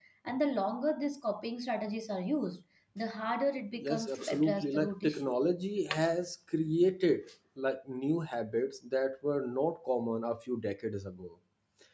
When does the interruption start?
3.8 s

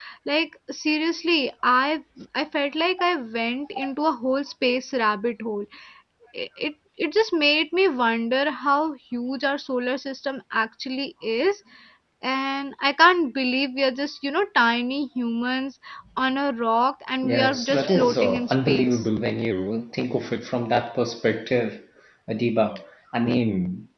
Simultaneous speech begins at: 17.2 s

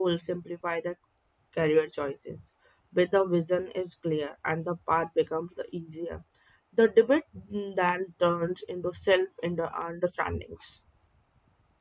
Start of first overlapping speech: none

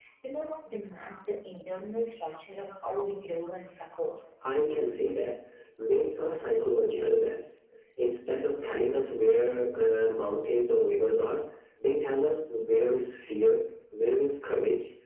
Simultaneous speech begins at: none

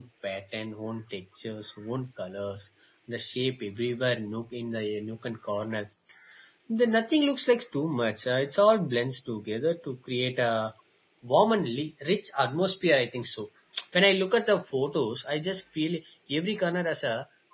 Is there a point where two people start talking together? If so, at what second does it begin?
none

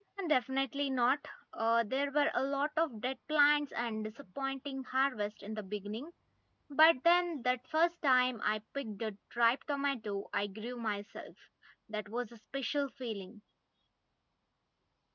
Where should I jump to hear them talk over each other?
none

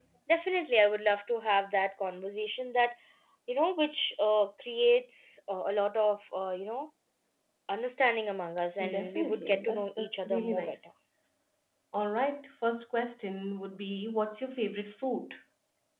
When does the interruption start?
8.8 s

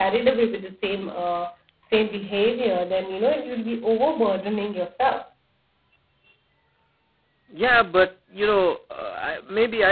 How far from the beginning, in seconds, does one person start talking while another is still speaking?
none

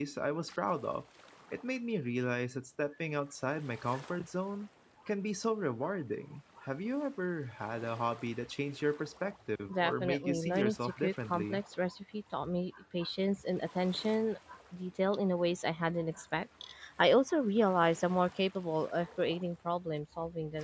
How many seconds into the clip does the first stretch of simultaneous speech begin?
9.7 s

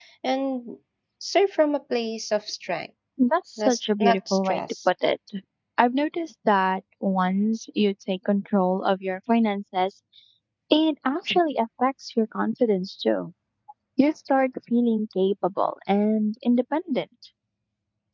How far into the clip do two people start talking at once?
3.6 s

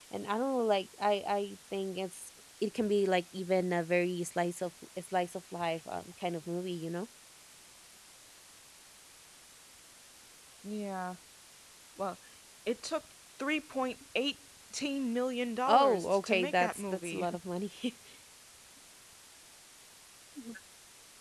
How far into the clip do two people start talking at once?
15.7 s

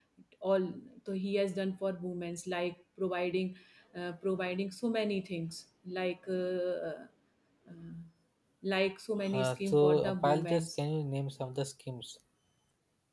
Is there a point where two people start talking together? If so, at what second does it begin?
9.3 s

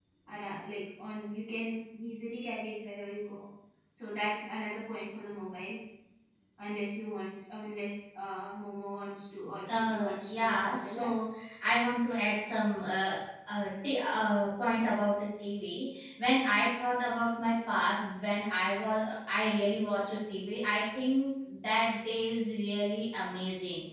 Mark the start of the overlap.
9.7 s

